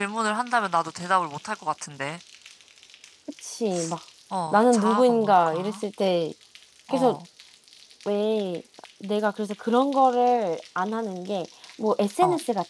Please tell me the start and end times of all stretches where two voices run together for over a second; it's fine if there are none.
4.5-5.8

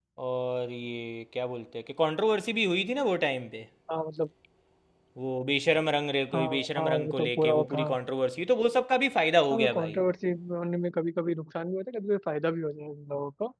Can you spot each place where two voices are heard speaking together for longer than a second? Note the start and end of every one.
6.3-8.0

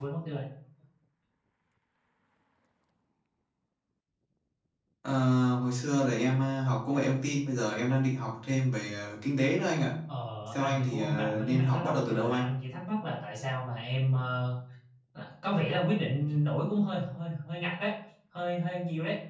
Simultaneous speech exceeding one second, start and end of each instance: 10.5-12.4

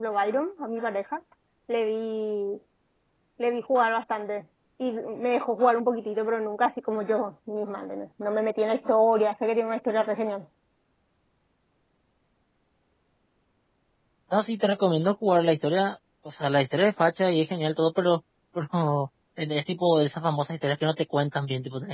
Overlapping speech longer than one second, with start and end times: none

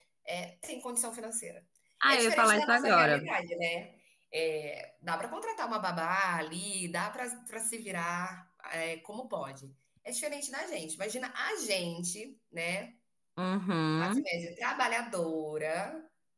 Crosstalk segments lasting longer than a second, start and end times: 2.1-3.3

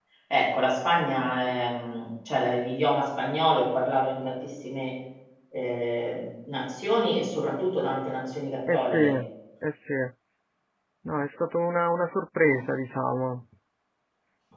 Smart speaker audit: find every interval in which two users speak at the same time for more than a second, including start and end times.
none

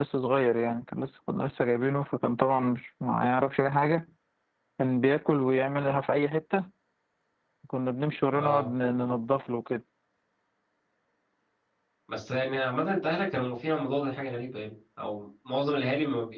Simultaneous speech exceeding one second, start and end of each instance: none

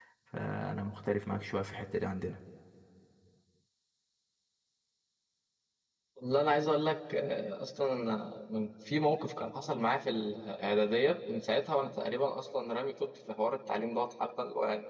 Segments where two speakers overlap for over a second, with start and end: none

